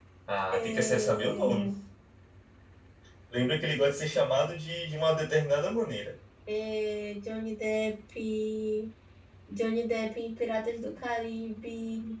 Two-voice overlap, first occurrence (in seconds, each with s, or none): 0.5 s